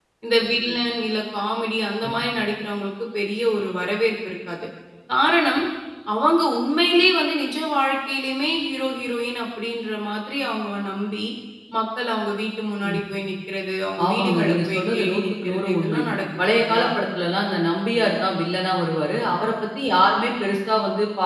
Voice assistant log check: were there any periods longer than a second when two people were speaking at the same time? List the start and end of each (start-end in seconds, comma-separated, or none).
14.0-16.0